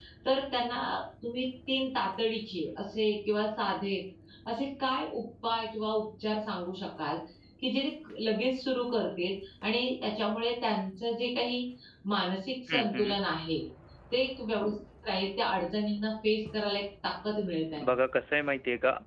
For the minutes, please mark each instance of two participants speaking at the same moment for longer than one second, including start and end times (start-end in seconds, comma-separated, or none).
none